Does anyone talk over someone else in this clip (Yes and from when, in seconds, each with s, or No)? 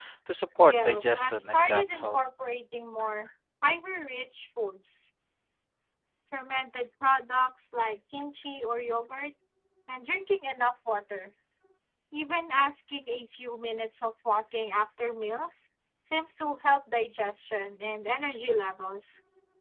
Yes, from 0.6 s